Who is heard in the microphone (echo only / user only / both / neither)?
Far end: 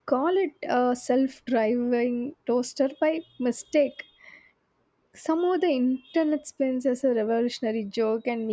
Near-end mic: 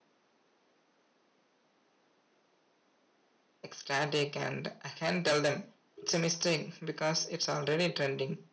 user only